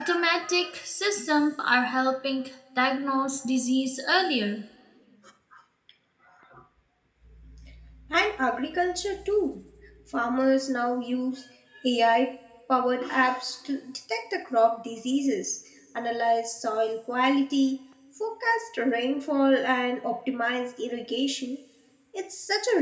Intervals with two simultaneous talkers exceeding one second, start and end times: none

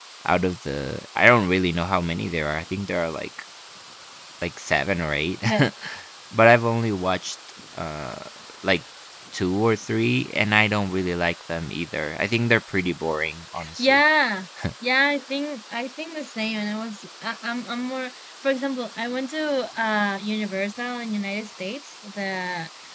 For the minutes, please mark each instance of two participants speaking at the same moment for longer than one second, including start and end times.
none

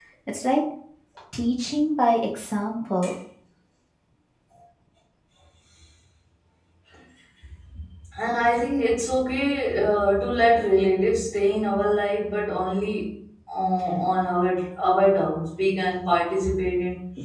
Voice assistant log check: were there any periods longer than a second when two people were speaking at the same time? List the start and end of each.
none

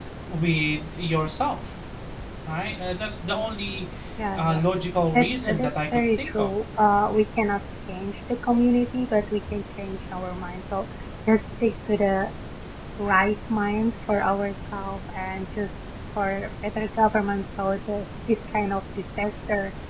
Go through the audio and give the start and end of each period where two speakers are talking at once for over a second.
5.1-6.5

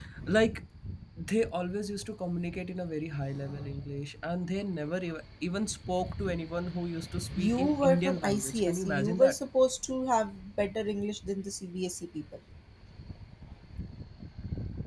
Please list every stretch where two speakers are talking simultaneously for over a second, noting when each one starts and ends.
7.4-9.4

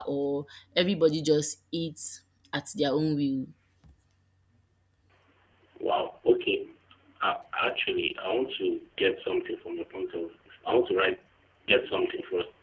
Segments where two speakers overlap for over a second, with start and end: none

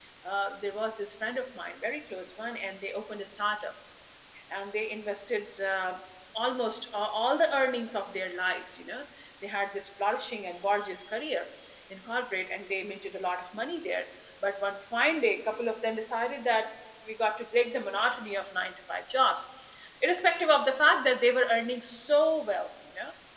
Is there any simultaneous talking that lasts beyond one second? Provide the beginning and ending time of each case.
none

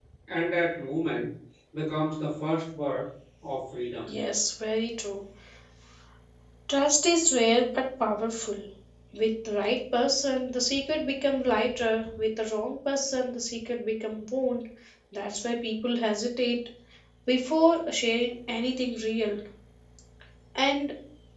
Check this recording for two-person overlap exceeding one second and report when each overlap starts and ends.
none

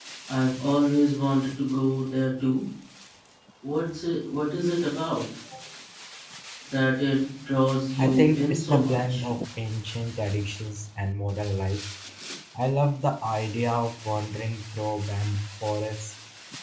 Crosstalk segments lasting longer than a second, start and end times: 8.0-9.2

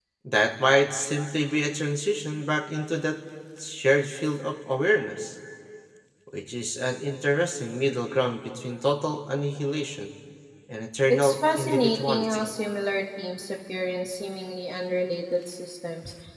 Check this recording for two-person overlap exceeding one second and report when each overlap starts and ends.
11.1-12.4

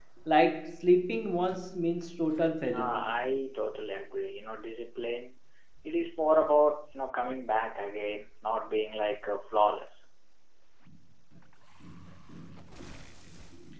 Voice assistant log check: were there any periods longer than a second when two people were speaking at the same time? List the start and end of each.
none

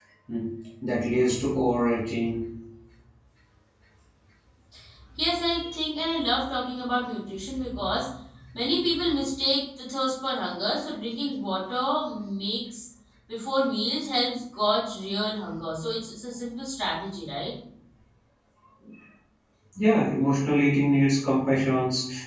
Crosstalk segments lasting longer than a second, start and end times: none

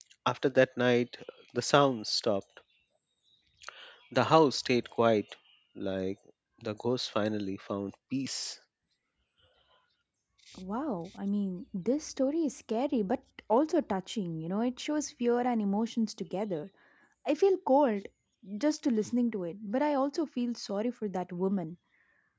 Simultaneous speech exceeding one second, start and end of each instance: none

